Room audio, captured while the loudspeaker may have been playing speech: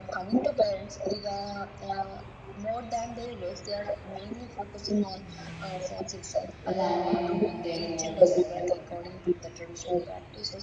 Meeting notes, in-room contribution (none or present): present